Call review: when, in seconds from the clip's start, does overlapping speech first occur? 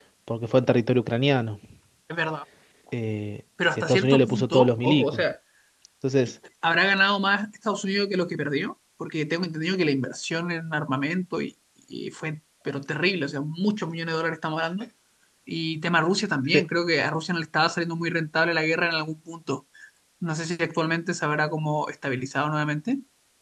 3.7 s

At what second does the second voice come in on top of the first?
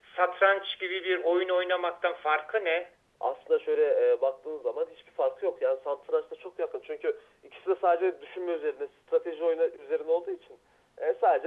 none

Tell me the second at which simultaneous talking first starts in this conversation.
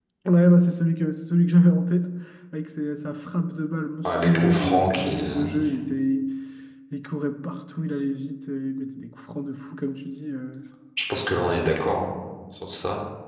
4.0 s

